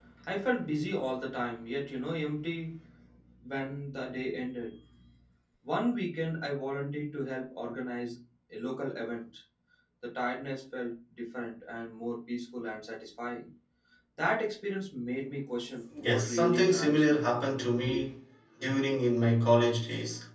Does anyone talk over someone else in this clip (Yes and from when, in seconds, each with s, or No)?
Yes, from 15.9 s